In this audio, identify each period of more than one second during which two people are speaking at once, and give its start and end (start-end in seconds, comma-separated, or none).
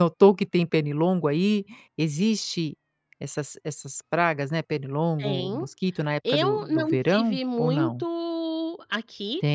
6.3-8.0